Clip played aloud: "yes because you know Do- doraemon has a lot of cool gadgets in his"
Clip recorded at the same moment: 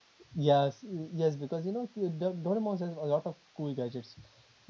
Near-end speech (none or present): none